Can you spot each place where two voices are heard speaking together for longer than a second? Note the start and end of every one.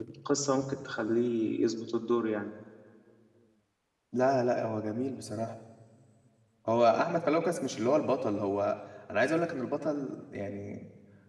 none

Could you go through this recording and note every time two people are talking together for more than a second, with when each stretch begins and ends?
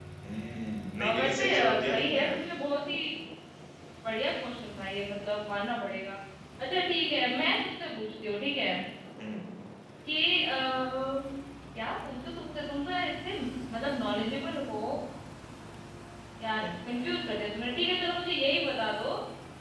1.0-2.3

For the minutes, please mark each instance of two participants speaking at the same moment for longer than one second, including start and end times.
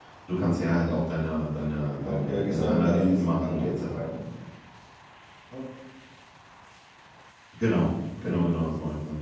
2.0-4.1

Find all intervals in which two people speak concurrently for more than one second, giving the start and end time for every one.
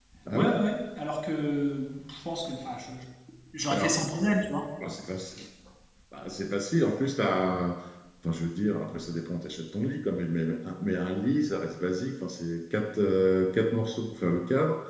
none

